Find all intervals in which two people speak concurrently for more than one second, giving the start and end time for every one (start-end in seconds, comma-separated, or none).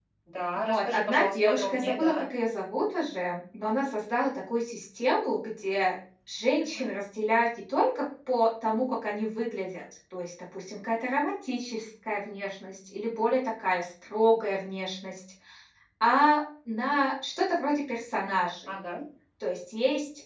0.6-2.2